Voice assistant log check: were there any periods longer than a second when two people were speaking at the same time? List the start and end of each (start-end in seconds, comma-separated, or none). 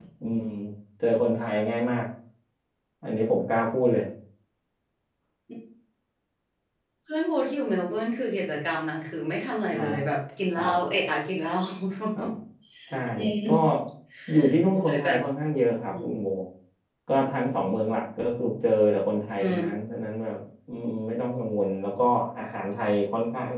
none